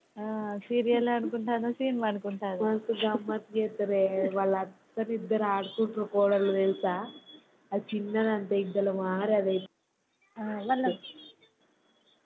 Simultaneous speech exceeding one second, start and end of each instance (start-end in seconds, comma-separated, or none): none